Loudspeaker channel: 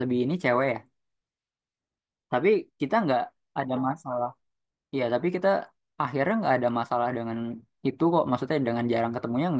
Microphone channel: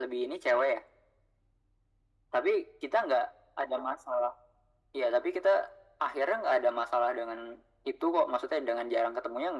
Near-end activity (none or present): none